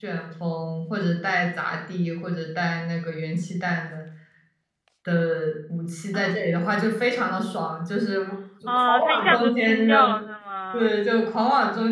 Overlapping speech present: Yes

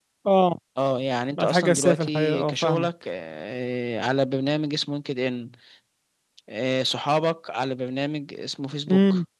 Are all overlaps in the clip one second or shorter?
No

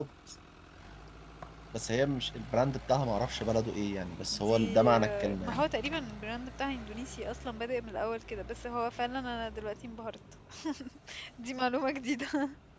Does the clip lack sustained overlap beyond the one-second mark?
No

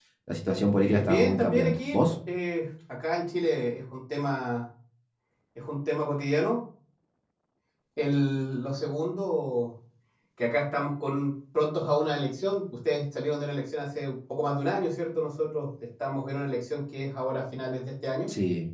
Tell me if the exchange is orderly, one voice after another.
No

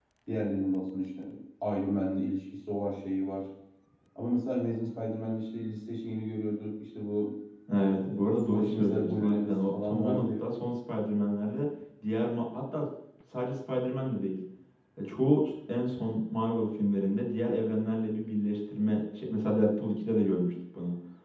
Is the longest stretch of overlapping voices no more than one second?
No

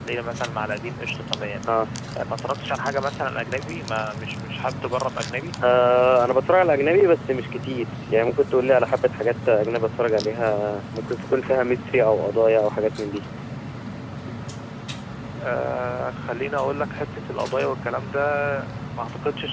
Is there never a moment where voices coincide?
Yes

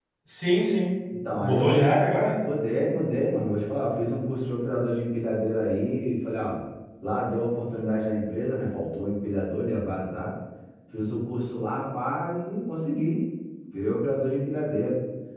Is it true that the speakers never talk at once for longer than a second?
Yes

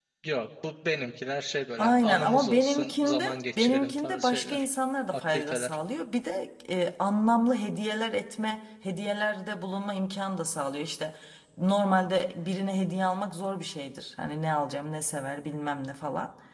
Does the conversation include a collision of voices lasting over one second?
Yes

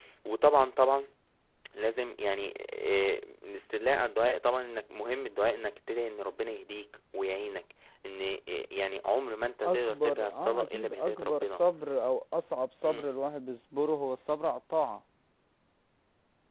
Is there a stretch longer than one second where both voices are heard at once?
Yes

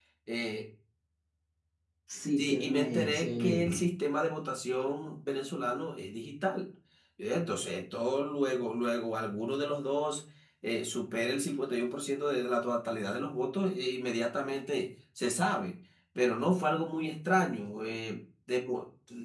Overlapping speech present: Yes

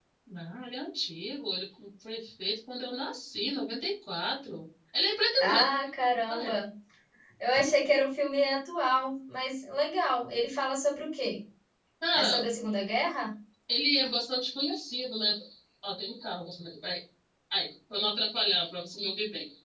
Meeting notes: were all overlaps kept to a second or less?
Yes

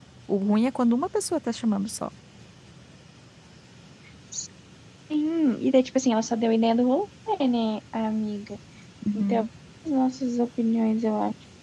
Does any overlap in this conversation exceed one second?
No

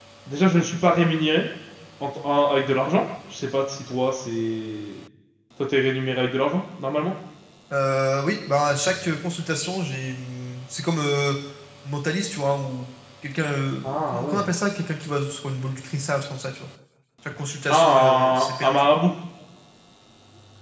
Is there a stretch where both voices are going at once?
Yes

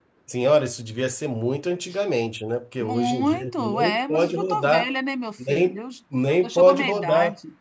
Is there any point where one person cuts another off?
Yes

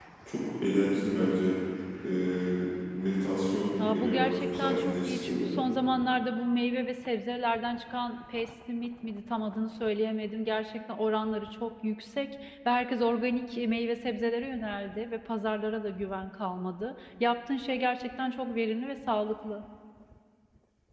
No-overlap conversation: No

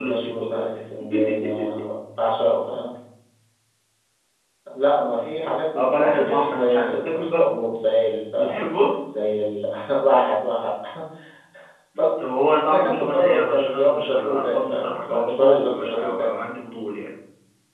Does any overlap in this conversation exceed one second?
Yes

